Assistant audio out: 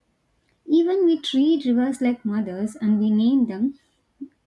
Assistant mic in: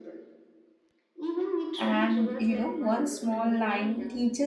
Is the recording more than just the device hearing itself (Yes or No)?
Yes